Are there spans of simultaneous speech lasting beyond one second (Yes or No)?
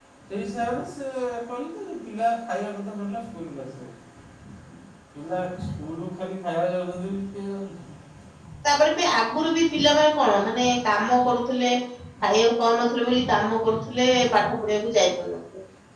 No